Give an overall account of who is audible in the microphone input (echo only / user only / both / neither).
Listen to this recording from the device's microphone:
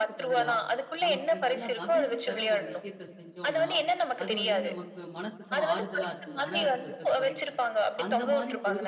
both